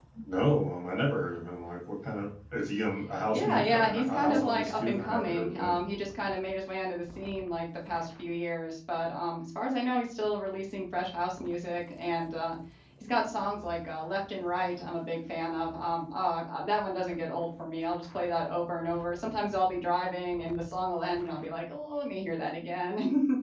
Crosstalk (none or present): present